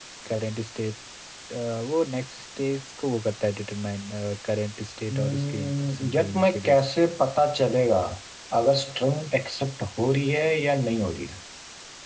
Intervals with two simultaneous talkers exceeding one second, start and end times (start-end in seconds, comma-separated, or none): 5.1-6.9